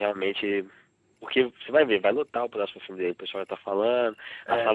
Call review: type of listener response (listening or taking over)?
listening